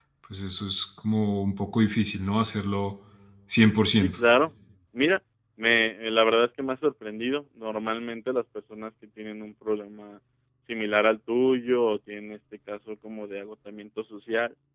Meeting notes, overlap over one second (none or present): none